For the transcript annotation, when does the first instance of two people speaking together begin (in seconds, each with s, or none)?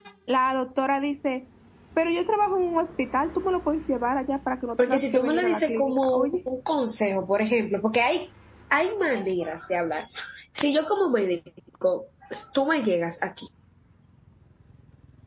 4.8 s